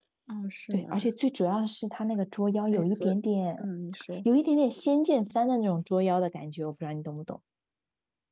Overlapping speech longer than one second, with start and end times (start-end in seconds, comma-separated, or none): none